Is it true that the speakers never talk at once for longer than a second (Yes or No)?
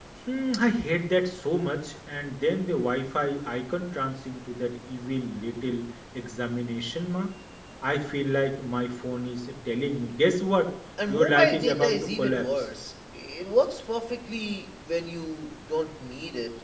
No